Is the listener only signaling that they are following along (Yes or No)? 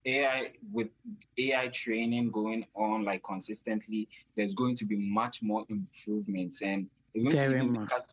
Yes